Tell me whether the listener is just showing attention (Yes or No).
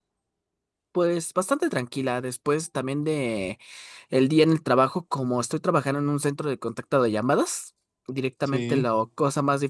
Yes